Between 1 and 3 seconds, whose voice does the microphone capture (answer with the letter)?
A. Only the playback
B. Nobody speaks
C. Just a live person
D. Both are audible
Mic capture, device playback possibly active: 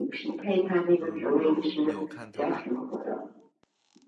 D